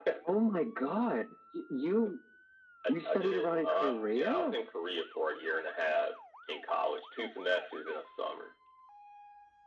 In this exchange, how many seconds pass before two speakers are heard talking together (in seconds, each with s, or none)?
2.9 s